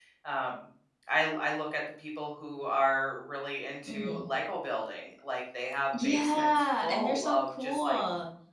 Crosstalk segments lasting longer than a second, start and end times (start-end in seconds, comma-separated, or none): 6.0-8.0